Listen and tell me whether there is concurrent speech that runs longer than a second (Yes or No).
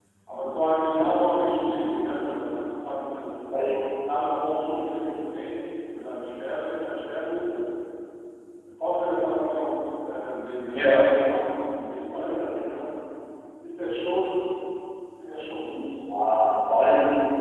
No